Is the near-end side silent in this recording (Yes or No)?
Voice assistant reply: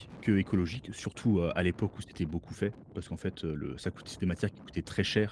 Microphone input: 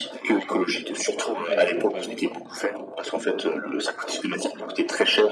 No